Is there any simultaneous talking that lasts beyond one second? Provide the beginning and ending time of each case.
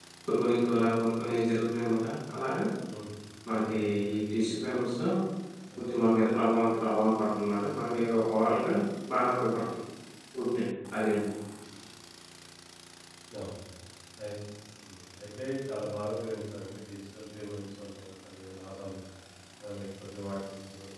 none

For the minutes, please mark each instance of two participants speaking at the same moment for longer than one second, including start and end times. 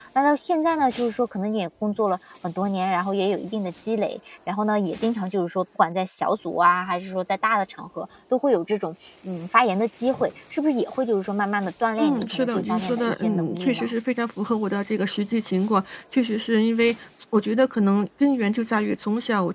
12.0-13.9

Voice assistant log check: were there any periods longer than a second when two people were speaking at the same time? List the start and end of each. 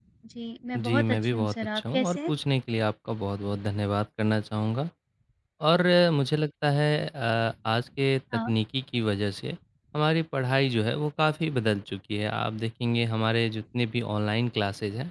0.8-2.3

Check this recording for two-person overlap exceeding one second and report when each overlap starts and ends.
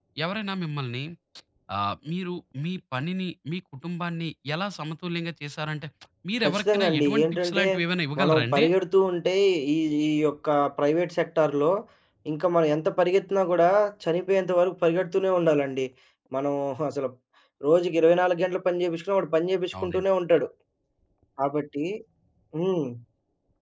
6.4-7.7

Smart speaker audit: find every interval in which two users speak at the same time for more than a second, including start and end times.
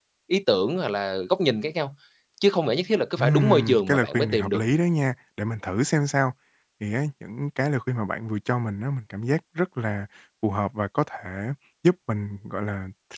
3.2-4.6

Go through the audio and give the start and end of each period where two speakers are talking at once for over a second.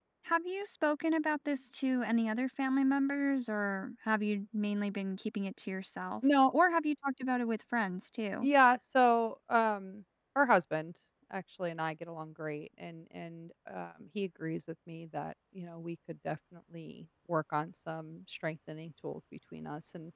none

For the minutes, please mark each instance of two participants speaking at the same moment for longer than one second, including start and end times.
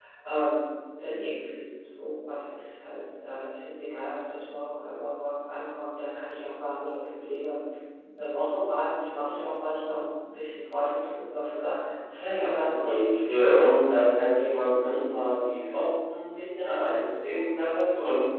12.4-13.8

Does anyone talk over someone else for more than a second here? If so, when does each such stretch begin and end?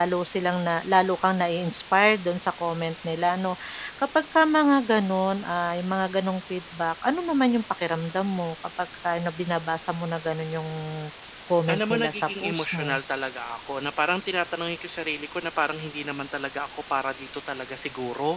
11.7-13.0

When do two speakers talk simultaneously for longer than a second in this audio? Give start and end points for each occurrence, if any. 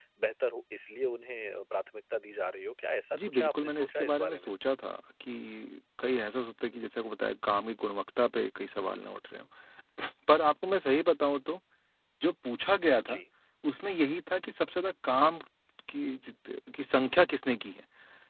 3.1-4.5

